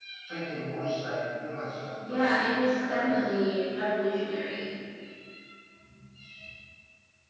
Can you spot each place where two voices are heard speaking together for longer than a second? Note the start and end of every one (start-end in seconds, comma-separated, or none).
2.1-3.3